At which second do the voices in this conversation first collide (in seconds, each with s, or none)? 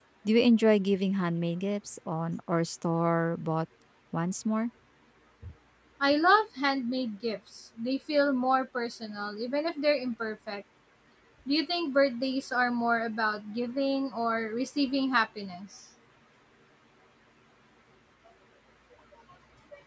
none